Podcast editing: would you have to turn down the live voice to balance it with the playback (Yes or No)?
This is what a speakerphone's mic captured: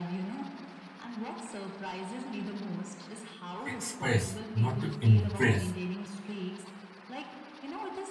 Yes